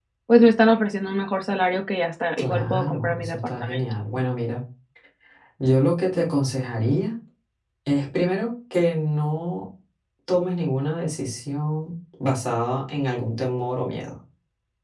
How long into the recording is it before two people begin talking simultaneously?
2.4 s

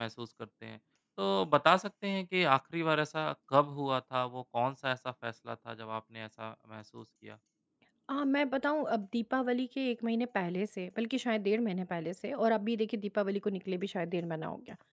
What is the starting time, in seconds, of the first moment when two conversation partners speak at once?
none

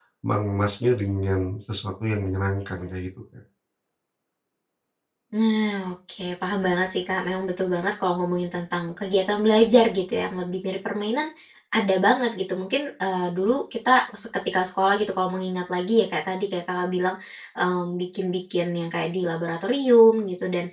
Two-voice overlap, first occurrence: none

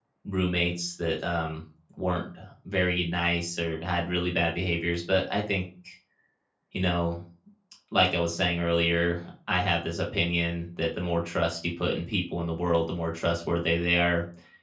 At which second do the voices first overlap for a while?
none

